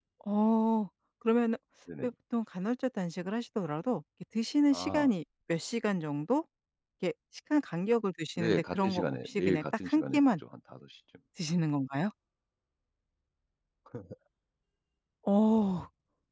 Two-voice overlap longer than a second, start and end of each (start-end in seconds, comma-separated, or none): 8.4-10.2